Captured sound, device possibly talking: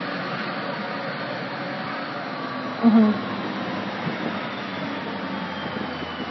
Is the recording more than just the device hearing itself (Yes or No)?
Yes